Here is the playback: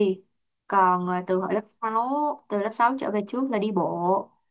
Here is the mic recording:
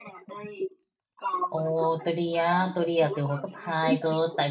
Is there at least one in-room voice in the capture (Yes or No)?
Yes